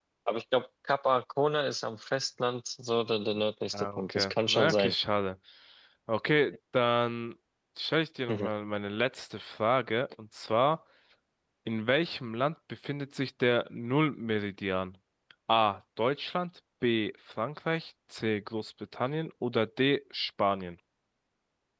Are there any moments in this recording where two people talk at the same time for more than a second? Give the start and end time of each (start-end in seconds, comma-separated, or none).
3.7-4.9